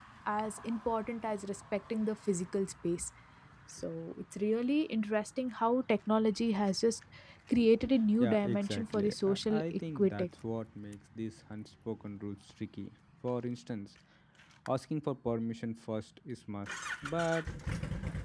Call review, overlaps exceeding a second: present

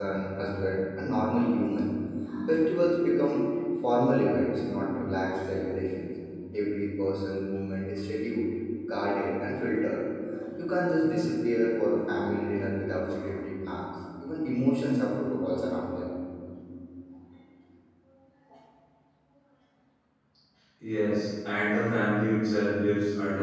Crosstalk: none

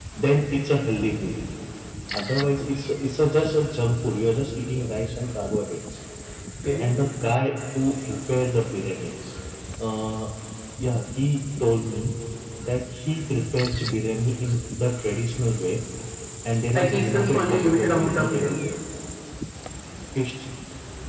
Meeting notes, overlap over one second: present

